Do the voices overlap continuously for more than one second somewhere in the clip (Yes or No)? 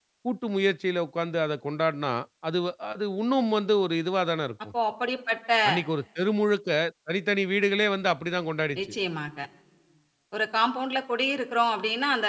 No